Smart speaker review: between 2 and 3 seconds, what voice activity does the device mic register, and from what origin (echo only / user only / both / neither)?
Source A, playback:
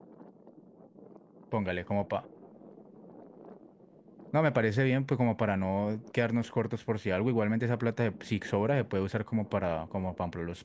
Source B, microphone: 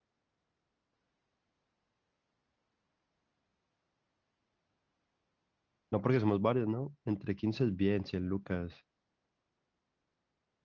neither